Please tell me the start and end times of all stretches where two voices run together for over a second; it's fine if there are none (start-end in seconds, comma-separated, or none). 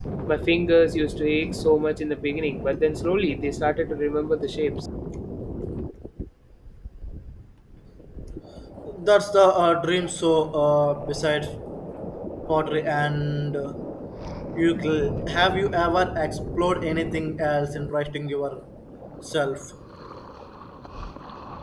none